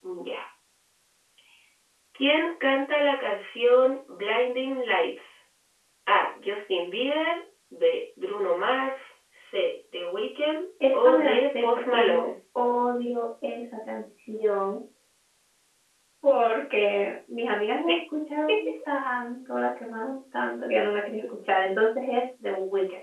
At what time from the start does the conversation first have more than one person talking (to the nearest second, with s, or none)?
11 s